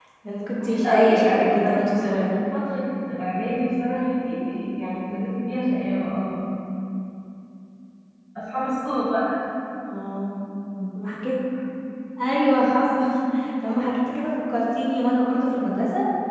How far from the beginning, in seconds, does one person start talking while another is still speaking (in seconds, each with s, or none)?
0.6 s